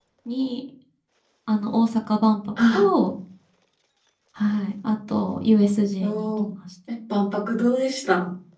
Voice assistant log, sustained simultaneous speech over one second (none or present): none